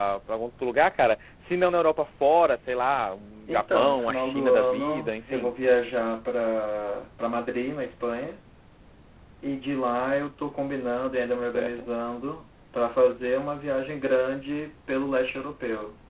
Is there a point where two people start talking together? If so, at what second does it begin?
3.5 s

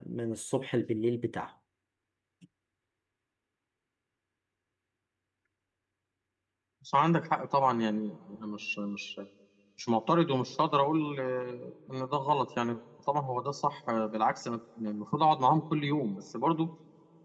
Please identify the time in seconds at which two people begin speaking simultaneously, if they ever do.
none

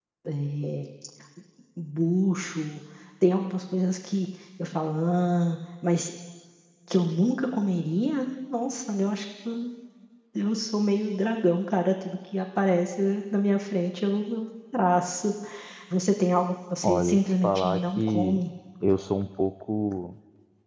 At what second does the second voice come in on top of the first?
16.8 s

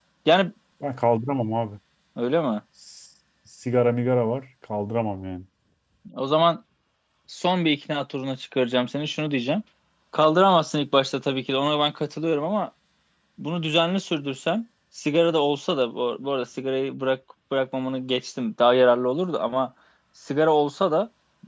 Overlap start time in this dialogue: none

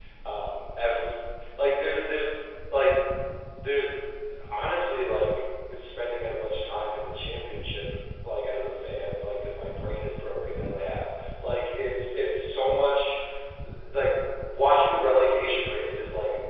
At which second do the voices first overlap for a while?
none

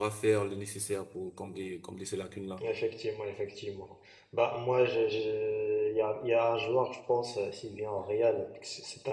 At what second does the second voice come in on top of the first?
none

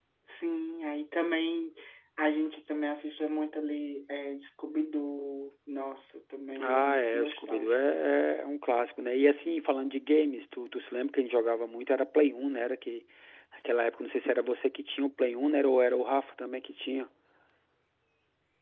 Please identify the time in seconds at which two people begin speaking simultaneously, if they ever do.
6.6 s

